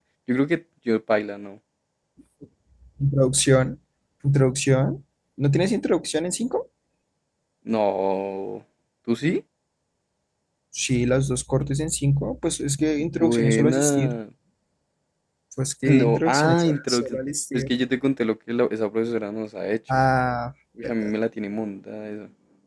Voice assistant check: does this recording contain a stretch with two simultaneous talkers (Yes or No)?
Yes